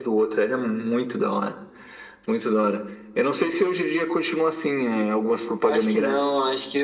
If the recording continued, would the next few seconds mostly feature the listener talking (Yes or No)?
Yes